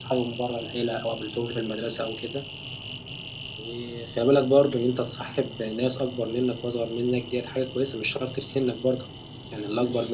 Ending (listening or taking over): taking over